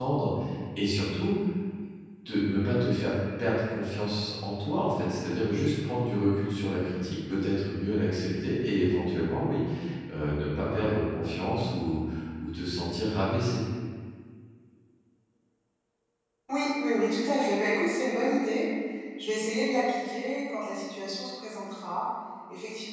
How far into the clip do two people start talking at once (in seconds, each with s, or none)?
none